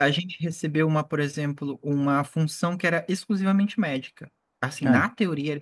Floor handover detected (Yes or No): No